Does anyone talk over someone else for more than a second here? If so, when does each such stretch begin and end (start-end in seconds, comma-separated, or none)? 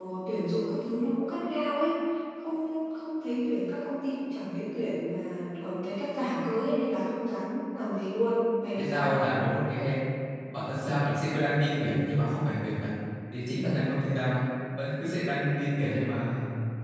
none